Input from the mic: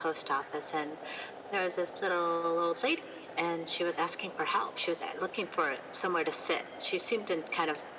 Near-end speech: none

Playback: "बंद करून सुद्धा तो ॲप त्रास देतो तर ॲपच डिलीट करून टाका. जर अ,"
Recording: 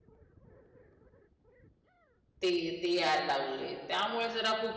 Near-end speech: present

